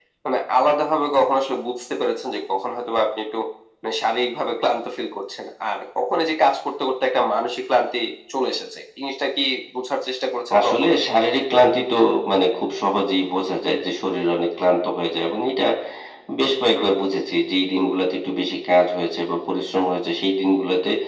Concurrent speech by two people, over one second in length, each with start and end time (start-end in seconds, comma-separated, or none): none